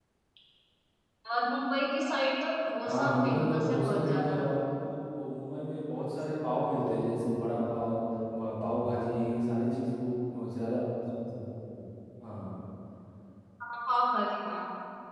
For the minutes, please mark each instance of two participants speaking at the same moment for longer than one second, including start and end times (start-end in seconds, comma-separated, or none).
2.8-4.4